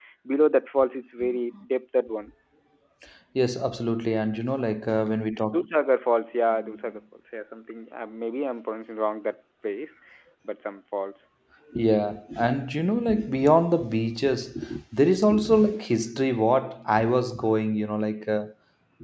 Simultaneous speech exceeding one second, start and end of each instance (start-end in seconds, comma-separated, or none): none